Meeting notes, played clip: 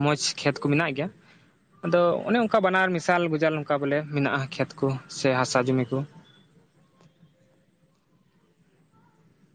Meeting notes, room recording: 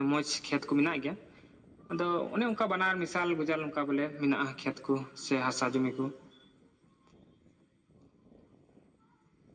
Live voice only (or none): none